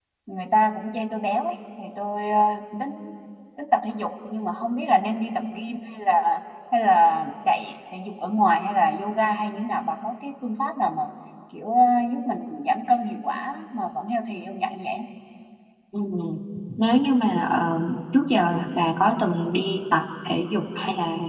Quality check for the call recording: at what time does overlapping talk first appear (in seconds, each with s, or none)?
none